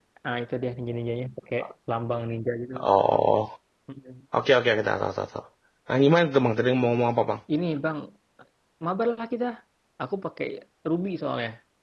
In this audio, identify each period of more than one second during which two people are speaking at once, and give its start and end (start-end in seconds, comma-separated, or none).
none